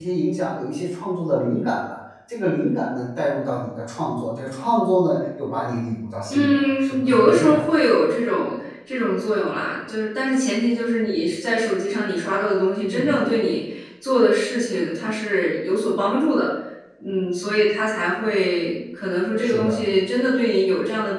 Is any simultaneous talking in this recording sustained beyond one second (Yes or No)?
Yes